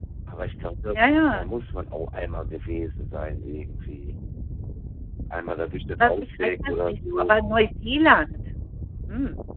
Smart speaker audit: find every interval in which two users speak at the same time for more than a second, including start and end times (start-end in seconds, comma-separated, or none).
6.0-7.3